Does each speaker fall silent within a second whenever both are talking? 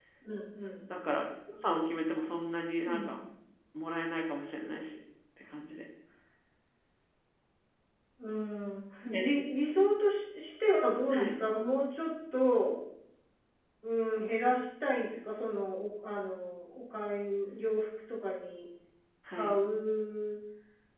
Yes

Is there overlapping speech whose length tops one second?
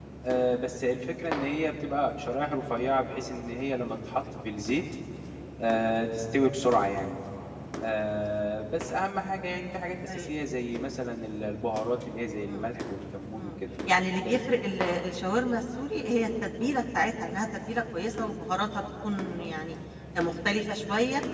No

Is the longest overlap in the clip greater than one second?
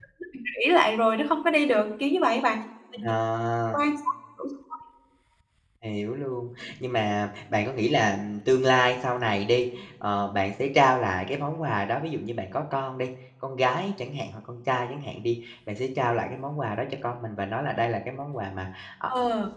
No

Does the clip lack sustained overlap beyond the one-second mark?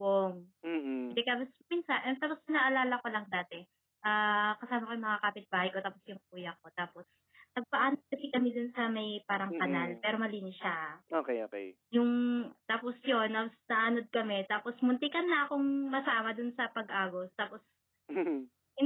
Yes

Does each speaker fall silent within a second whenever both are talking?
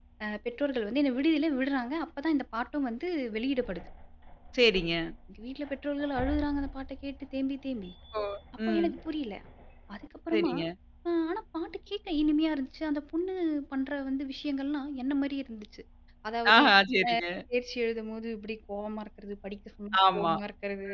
Yes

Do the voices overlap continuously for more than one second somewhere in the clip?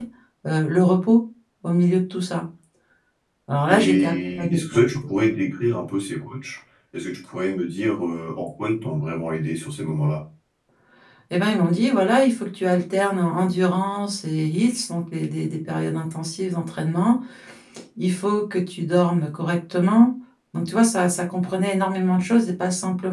Yes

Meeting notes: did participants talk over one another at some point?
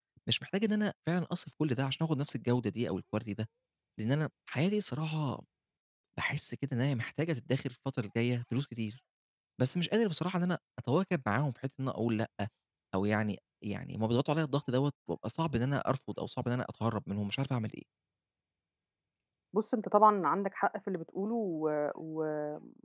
No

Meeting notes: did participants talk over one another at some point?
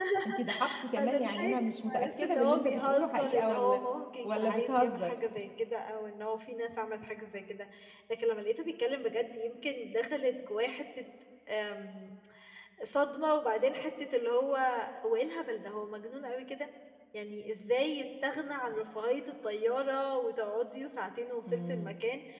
Yes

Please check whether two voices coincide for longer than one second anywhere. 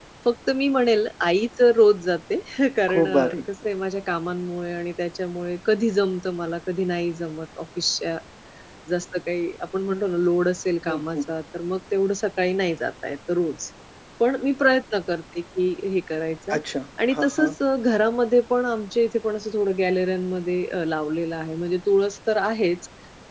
No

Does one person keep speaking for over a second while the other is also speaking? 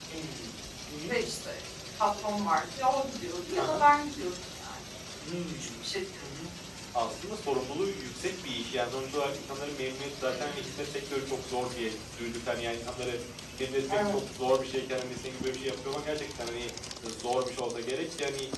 No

